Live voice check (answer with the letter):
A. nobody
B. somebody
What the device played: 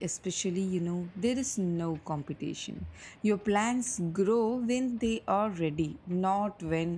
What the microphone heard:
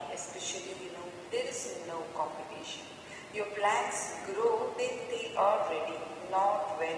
A